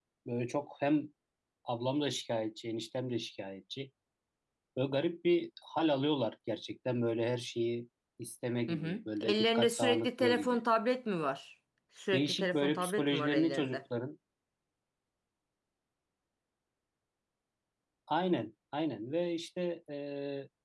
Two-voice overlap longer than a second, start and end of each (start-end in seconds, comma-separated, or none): 8.7-10.6, 12.1-13.8